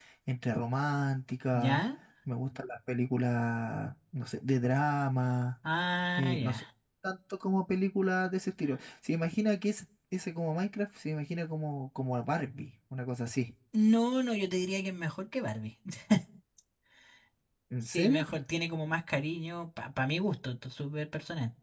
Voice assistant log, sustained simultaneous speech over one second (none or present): none